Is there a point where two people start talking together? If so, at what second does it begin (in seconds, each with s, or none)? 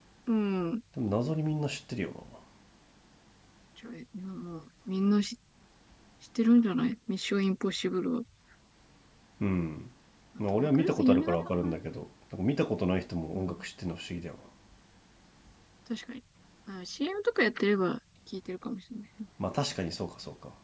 10.5 s